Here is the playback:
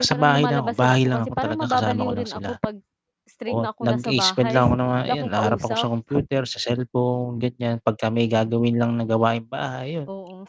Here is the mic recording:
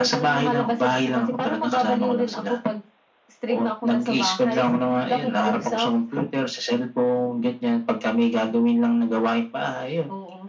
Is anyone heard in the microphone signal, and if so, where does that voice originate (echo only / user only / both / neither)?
echo only